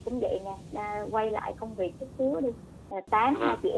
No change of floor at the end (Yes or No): Yes